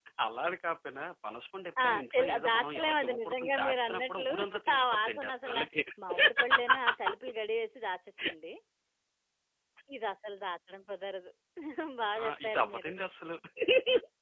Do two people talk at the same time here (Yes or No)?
Yes